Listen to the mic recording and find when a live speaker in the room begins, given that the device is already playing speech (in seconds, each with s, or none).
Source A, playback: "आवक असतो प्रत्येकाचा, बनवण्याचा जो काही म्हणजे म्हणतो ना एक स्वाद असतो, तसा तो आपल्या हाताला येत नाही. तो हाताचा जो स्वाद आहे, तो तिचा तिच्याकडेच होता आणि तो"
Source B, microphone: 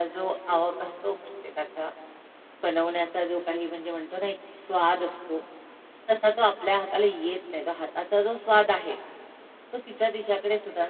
none